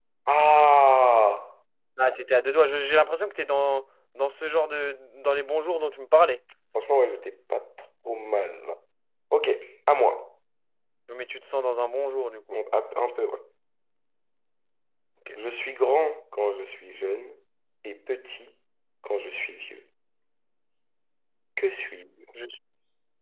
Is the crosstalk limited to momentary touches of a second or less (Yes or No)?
Yes